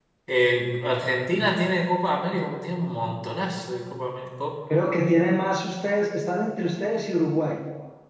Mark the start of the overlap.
none

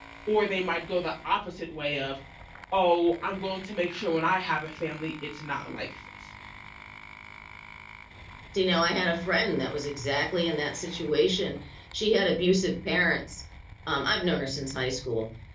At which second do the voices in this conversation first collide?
none

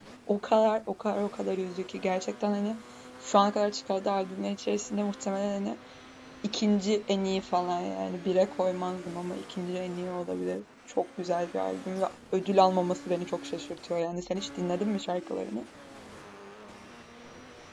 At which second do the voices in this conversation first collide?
none

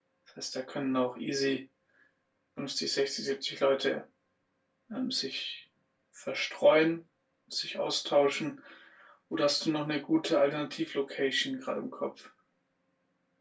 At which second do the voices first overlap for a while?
none

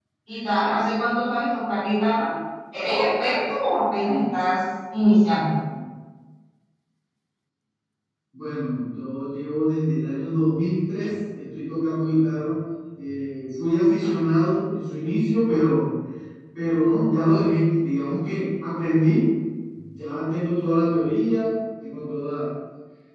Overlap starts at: none

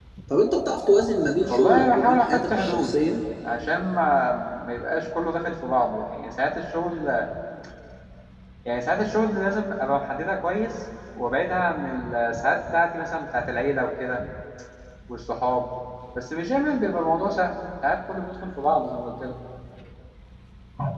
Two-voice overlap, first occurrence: 1 s

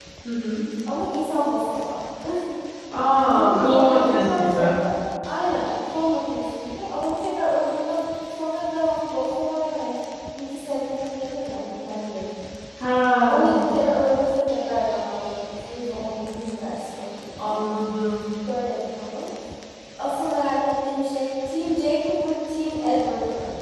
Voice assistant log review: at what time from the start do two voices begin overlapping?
3 s

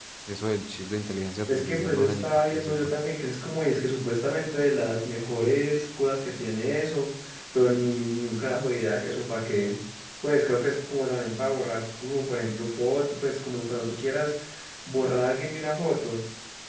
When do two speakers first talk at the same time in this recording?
1 s

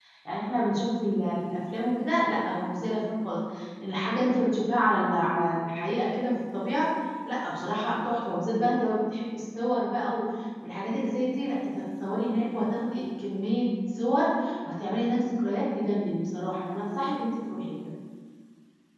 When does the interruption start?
none

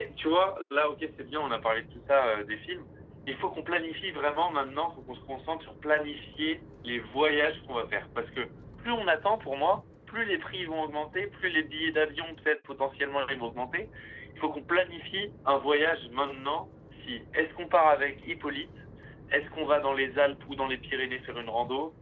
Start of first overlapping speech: none

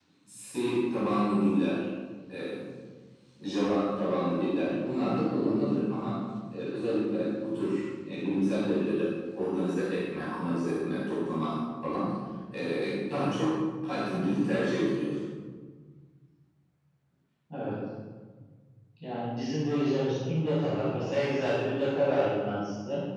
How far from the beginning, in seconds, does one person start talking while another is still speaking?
none

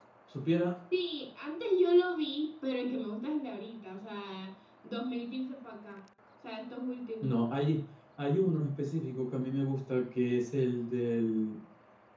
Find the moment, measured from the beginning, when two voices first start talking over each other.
none

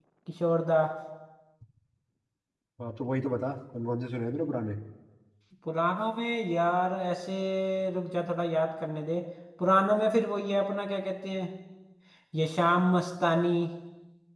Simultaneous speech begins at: none

